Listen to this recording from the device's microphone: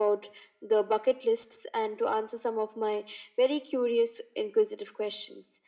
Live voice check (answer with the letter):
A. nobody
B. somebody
A